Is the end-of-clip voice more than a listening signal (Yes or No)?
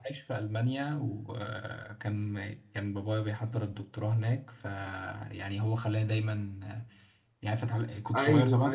Yes